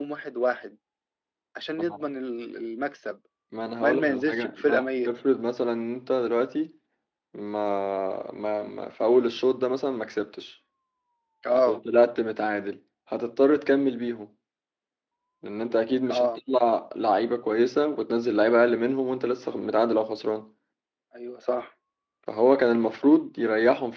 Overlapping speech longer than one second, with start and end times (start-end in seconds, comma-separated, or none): 3.8-5.1